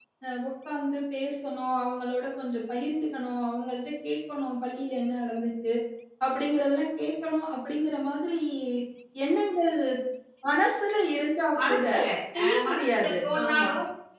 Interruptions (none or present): present